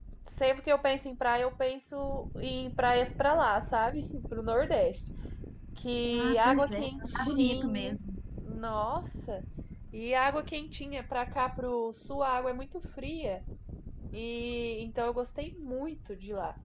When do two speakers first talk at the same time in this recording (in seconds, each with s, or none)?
6.1 s